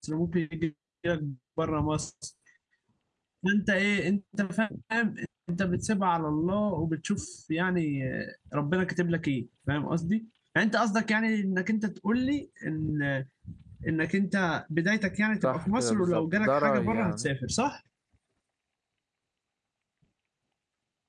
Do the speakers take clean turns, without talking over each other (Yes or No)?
No